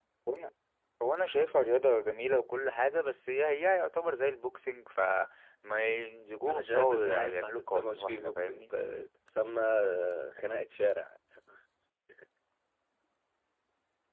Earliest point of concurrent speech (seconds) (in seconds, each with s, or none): 6.5 s